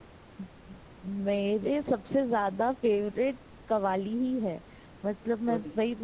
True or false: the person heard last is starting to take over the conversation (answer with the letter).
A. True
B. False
B